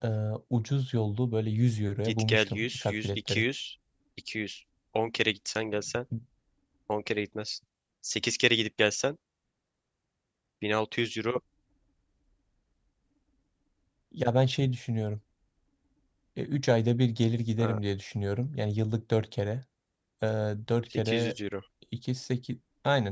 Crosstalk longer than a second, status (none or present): present